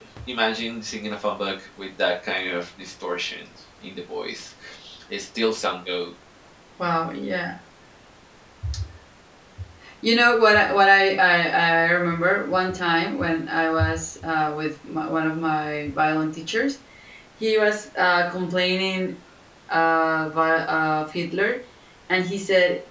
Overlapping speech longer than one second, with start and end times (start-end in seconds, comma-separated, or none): none